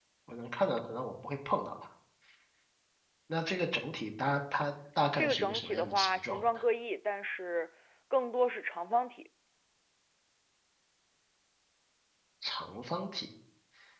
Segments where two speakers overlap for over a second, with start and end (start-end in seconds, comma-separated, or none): 5.2-6.4